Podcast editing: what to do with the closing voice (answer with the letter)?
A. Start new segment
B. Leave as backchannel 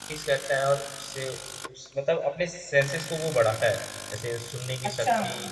A